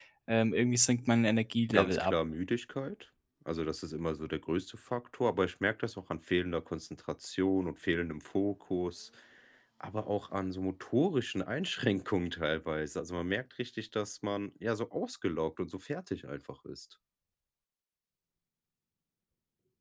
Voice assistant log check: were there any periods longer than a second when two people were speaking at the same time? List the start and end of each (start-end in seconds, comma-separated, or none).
none